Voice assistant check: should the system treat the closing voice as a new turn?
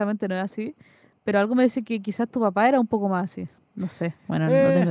Yes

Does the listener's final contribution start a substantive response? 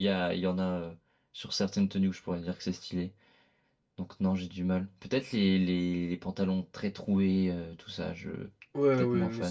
Yes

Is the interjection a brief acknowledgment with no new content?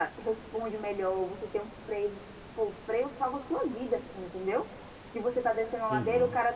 Yes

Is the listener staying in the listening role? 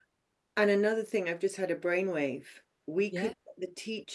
Yes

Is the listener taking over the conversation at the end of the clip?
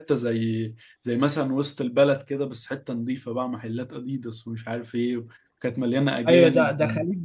Yes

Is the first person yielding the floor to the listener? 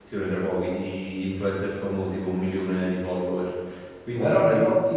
Yes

